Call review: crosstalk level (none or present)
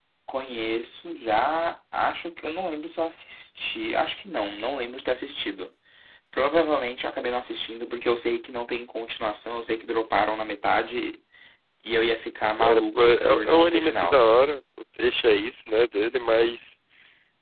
present